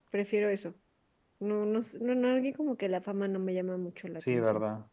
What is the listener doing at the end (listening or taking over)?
taking over